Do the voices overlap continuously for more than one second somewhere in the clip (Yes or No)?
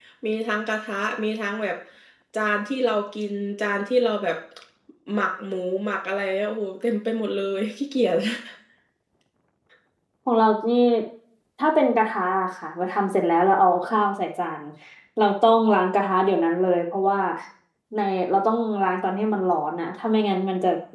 No